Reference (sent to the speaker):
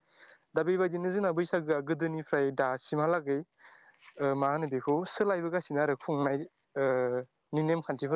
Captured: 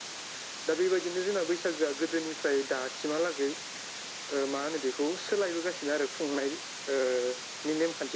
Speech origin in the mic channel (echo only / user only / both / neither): echo only